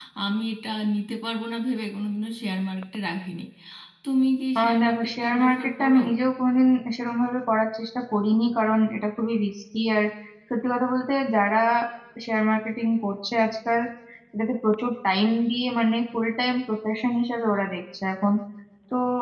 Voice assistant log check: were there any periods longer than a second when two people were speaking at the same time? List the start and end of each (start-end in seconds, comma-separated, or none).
4.6-5.9